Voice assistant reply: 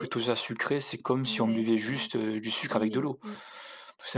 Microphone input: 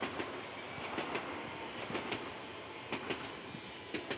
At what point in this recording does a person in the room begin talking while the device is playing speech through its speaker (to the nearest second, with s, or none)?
none